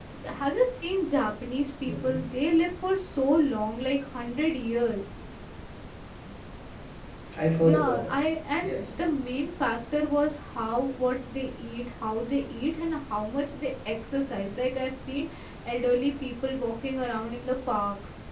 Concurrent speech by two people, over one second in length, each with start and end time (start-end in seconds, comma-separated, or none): none